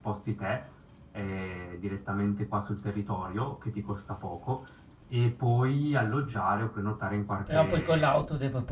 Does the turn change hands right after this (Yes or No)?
Yes